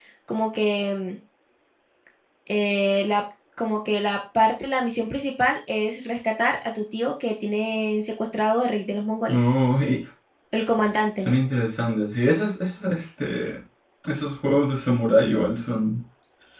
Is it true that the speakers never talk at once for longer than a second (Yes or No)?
Yes